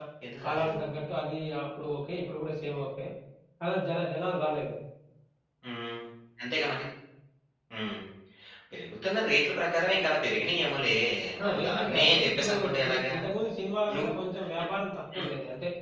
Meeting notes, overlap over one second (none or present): present